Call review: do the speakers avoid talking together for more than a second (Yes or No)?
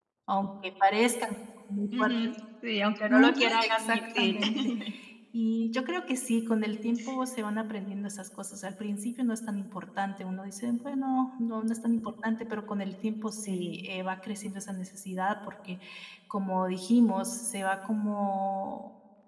No